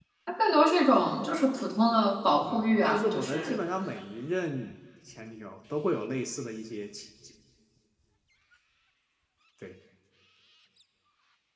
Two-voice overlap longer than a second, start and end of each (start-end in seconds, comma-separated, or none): 2.4-3.6